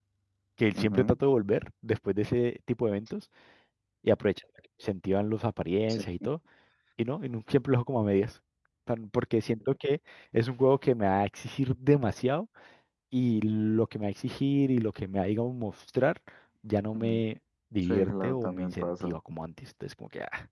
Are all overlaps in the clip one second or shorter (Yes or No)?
No